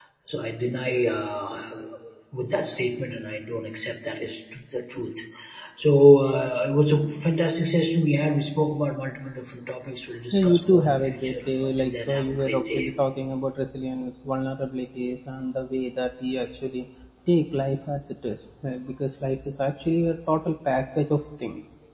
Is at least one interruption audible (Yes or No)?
Yes